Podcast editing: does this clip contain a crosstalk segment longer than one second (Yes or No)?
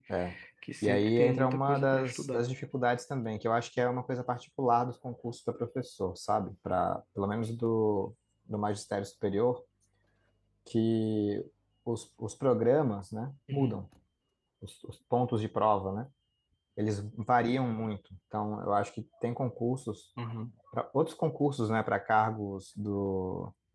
Yes